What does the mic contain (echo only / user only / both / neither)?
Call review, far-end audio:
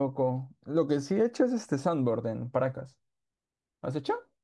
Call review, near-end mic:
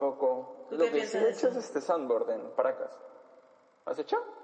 both